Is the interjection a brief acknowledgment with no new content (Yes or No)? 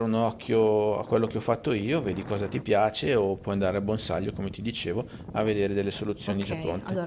No